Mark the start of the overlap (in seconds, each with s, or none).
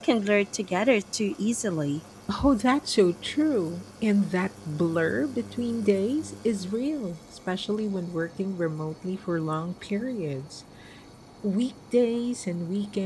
none